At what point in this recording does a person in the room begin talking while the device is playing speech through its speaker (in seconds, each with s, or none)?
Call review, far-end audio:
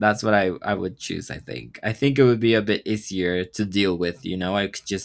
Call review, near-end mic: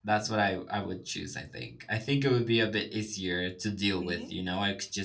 4.0 s